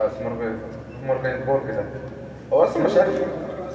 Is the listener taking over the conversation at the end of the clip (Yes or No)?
Yes